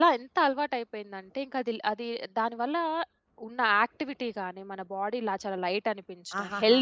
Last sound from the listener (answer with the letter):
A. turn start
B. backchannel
B